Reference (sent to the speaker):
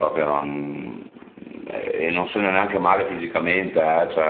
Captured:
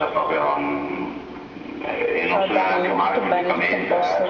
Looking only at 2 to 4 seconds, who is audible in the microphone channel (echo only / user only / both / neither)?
both